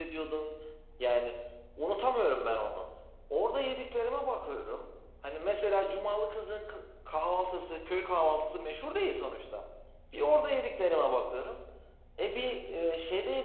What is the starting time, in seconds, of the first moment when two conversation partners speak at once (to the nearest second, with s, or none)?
none